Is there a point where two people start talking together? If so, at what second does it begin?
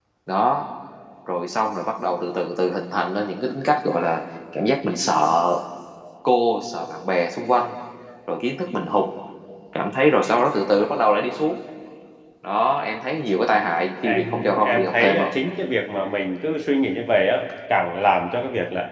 14.0 s

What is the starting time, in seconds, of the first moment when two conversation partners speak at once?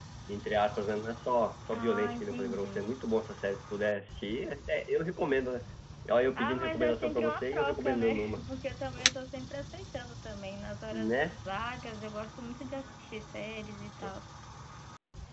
1.7 s

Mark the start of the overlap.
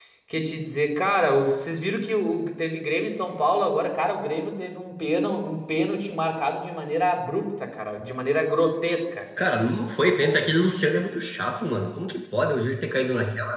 none

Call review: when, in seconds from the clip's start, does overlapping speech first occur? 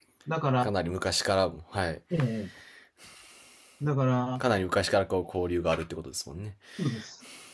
none

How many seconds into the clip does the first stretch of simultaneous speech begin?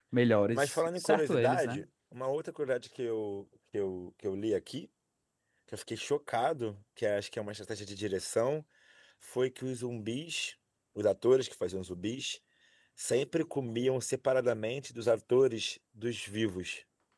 0.5 s

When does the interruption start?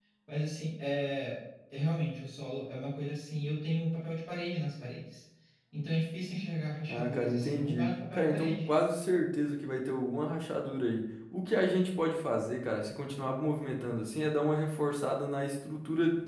6.9 s

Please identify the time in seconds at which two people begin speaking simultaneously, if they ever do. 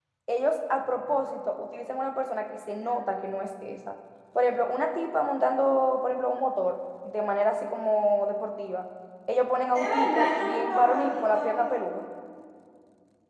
9.8 s

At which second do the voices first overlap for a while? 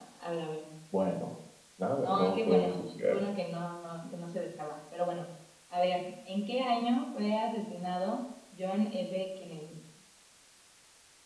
2.0 s

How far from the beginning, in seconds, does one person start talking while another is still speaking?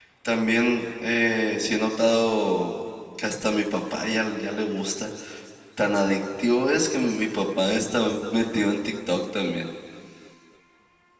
none

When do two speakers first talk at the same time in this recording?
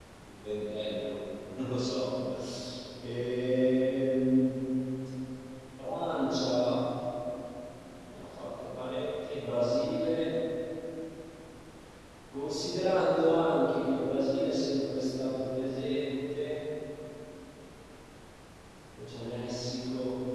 none

